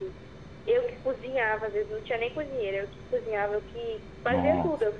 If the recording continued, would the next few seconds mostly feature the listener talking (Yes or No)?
No